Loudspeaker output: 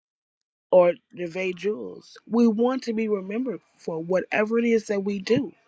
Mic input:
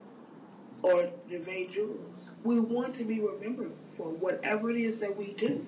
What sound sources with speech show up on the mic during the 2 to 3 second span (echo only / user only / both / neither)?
echo only